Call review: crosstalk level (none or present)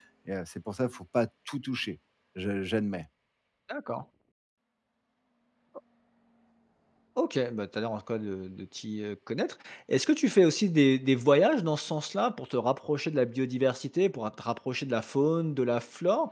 none